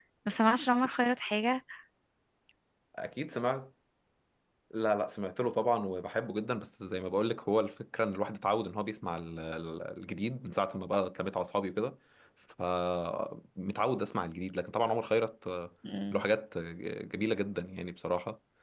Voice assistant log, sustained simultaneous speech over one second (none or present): none